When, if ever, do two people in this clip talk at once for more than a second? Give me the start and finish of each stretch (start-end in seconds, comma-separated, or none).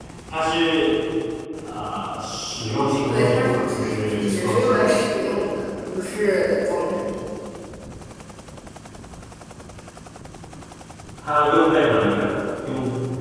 3.1-4.9